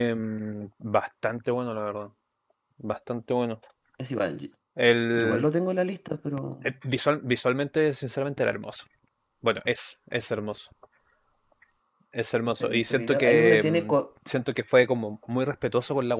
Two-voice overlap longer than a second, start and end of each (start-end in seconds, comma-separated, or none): 12.6-13.9